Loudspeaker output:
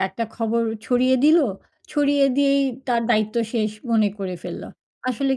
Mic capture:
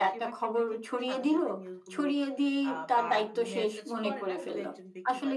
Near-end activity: present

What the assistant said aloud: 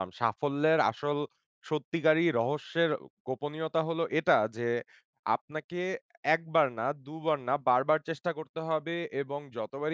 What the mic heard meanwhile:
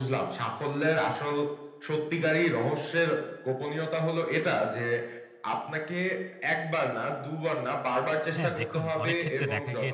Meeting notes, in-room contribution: present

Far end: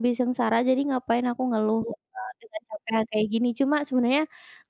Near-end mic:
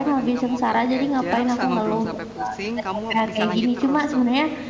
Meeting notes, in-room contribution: present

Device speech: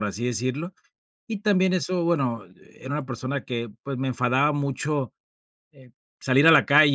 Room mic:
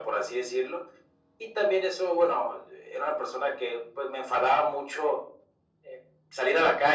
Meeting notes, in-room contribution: none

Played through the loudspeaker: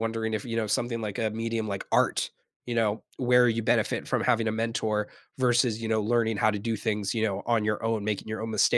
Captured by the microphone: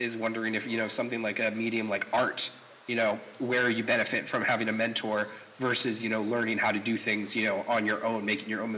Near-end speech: none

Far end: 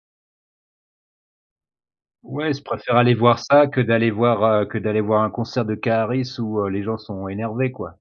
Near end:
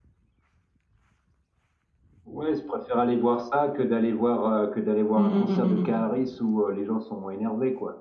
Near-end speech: present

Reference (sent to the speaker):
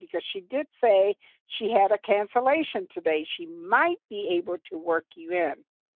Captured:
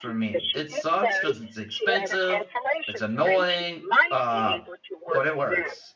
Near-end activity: present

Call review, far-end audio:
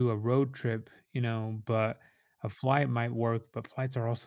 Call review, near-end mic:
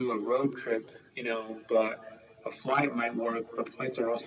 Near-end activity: none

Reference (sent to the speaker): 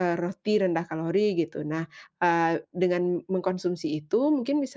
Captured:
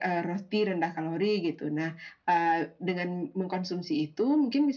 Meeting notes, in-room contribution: none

